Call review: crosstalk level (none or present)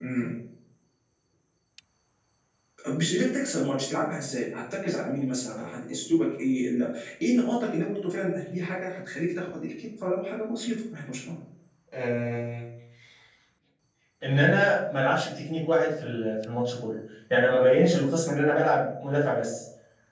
none